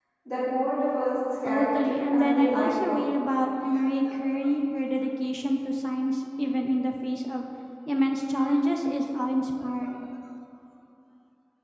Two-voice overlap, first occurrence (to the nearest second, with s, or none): 1 s